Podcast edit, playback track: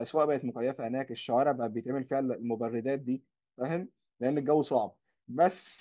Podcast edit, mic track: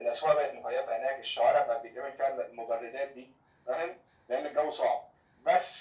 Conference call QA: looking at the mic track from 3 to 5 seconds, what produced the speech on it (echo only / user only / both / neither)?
echo only